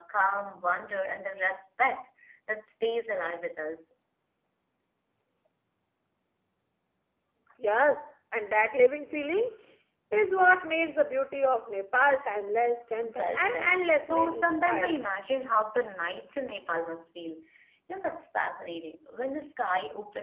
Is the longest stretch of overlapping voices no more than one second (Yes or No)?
No